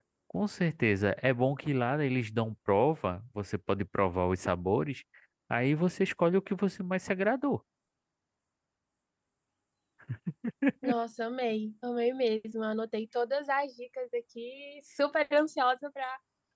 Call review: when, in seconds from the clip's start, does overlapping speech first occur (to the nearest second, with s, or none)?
none